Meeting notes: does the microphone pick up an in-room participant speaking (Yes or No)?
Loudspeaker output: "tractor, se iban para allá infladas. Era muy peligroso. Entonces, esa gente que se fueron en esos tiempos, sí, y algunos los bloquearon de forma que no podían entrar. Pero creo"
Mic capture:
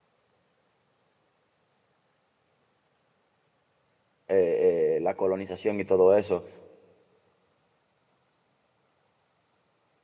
Yes